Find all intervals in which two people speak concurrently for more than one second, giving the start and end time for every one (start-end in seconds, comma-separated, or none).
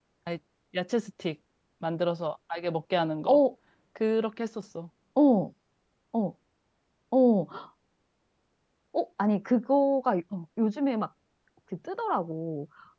none